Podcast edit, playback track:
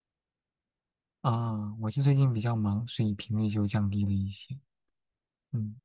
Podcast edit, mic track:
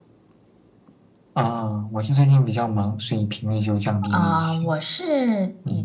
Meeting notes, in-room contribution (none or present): present